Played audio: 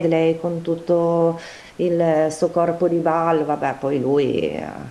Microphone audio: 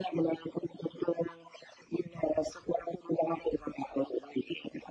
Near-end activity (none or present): none